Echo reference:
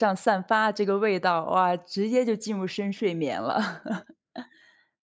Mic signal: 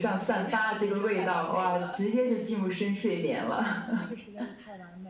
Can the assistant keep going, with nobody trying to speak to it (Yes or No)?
No